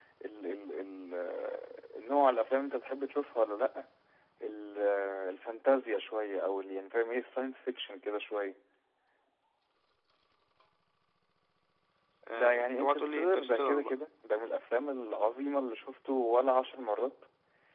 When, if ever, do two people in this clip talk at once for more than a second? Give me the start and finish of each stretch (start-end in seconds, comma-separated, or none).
12.3-13.9